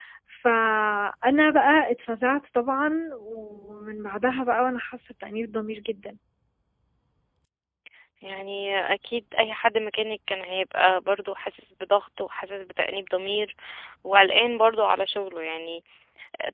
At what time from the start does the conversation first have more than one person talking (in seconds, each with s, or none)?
none